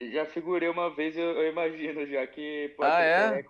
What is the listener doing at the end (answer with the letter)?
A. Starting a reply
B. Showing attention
B